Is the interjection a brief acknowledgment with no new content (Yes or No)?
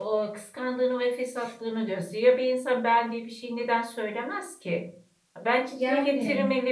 Yes